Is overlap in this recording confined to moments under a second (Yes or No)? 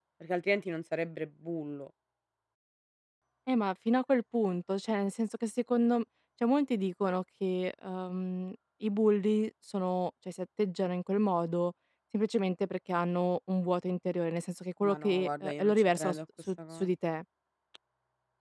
No